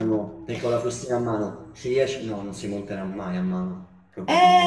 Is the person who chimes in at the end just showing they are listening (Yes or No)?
No